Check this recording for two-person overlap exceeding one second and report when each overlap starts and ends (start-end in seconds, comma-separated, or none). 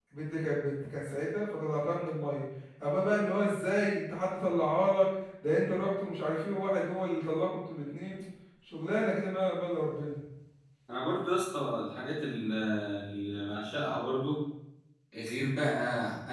none